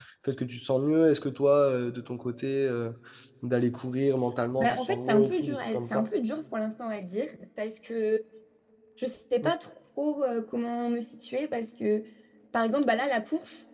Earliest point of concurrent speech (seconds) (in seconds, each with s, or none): 4.6 s